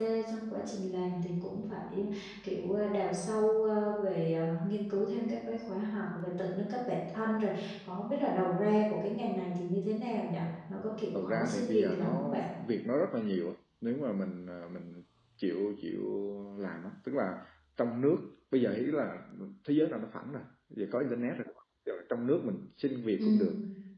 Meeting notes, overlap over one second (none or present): present